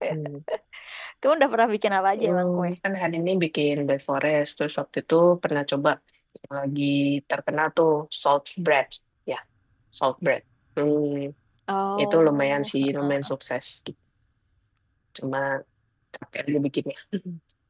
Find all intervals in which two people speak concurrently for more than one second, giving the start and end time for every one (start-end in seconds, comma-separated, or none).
12.0-13.3